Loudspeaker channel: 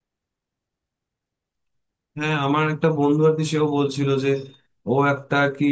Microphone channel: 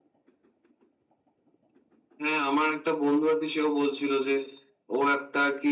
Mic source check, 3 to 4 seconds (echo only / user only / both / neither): echo only